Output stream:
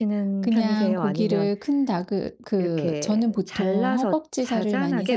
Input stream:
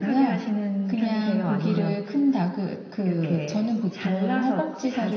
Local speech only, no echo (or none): none